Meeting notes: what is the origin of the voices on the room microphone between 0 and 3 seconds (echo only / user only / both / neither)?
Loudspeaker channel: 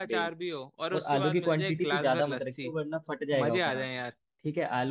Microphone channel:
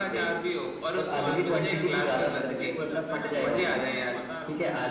both